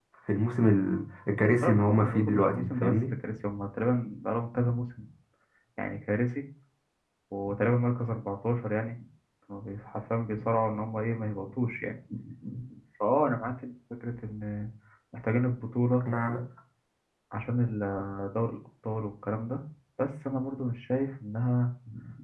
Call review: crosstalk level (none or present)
present